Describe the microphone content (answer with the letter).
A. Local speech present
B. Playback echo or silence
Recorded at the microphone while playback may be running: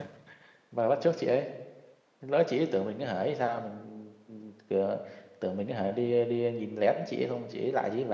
A